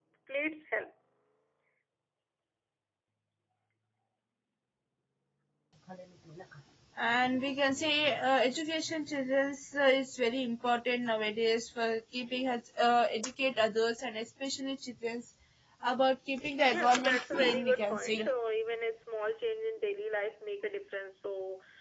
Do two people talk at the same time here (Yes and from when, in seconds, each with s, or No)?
Yes, from 16.7 s